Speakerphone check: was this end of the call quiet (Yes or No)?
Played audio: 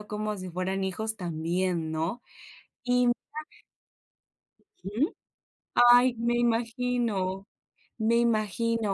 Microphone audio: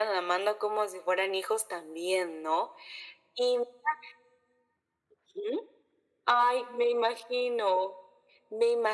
Yes